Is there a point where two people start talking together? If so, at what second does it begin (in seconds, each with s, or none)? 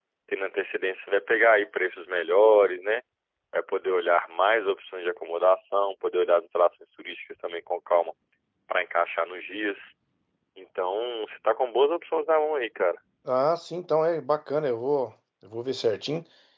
none